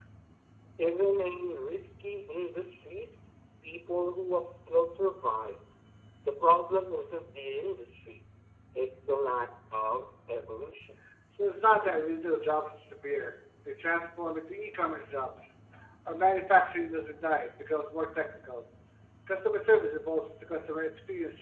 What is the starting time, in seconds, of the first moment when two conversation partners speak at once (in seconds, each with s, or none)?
none